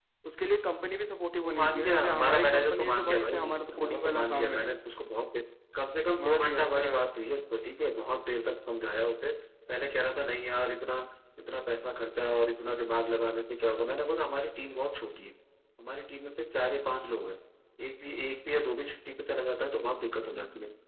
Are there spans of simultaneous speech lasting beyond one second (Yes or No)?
Yes